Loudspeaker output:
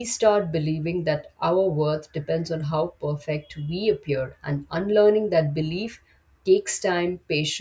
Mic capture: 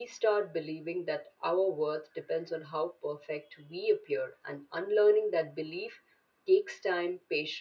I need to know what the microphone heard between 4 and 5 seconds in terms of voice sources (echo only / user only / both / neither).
echo only